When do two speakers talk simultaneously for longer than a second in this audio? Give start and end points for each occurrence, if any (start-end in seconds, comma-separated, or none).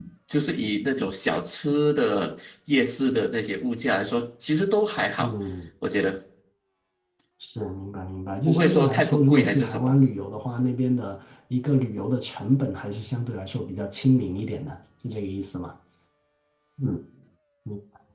8.5-9.9